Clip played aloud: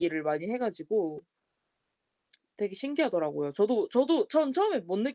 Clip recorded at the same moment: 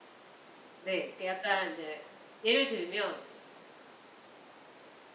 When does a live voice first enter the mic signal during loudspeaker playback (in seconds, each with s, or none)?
0.8 s